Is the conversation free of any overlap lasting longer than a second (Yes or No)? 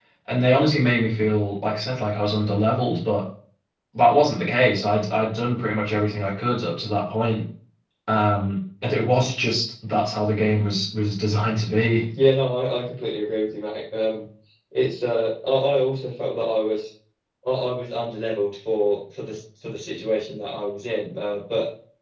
Yes